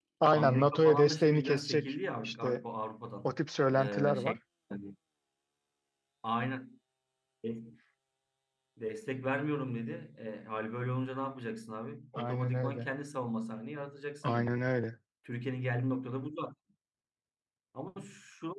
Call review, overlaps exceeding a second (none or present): present